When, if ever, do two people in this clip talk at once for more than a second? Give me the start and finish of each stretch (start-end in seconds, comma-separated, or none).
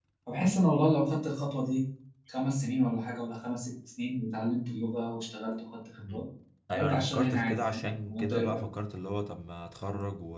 6.8-8.6